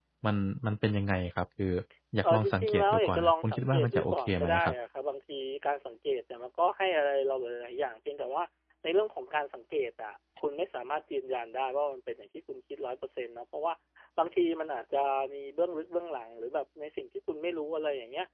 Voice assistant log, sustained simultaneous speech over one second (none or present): present